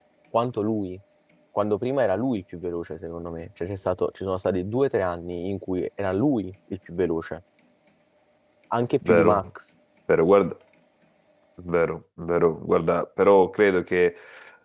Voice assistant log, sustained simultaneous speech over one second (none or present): none